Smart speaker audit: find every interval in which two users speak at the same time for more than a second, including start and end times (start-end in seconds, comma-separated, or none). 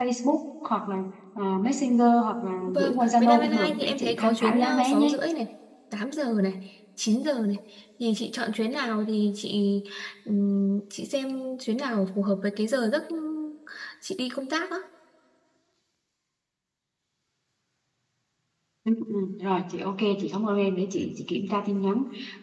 2.7-5.2